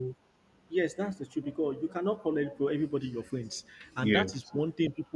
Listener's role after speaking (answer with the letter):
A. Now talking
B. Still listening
B